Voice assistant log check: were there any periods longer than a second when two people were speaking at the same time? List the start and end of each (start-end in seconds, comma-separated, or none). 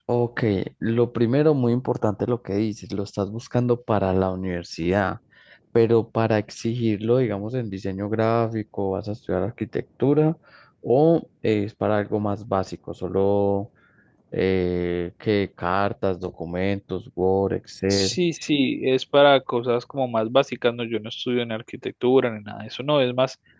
none